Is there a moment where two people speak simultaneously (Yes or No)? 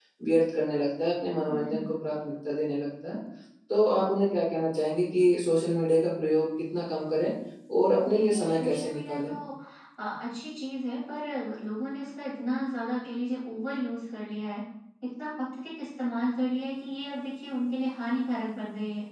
Yes